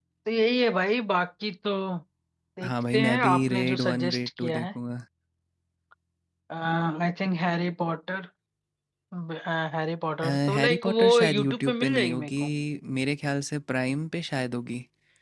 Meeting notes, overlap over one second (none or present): present